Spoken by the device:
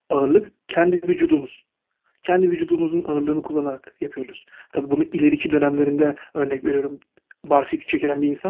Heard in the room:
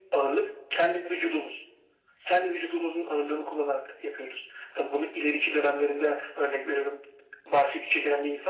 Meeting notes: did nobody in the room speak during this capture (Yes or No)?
Yes